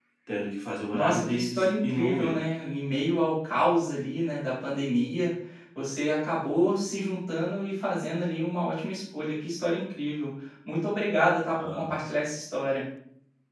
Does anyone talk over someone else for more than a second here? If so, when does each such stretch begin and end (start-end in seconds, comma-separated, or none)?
0.9-2.4